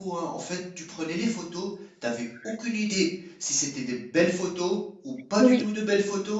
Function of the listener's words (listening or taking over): listening